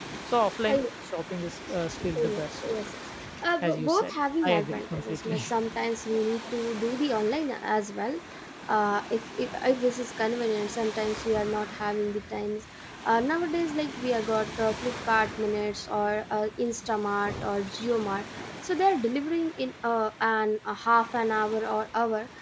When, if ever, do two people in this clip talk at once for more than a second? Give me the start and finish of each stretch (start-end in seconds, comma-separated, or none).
3.6-5.4